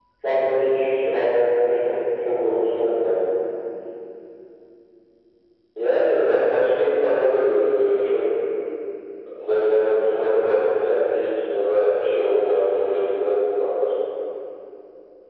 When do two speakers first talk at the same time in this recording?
none

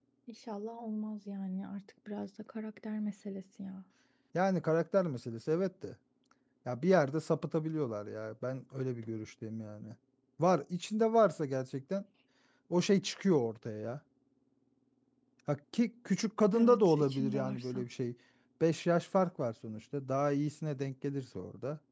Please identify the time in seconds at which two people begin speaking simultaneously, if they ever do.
16.5 s

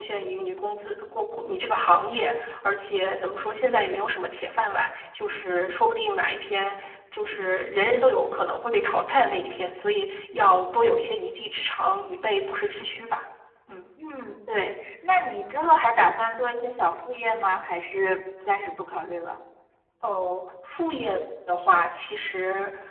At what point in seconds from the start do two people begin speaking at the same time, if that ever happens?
none

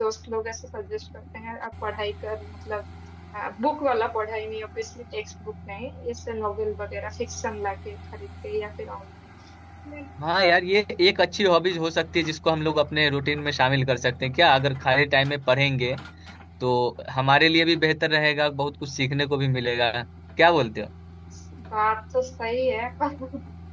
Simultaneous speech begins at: none

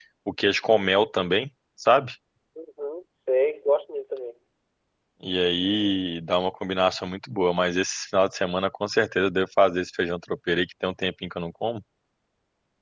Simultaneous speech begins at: none

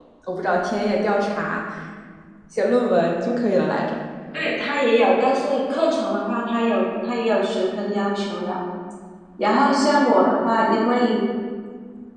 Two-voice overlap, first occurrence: none

